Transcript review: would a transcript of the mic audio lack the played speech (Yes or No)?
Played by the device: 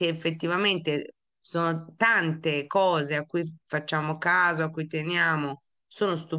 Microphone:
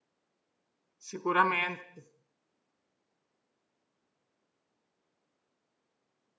Yes